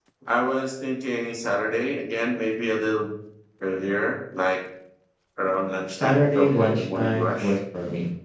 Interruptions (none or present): present